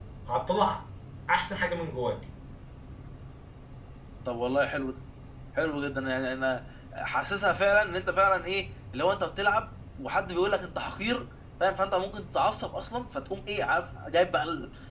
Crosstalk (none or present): none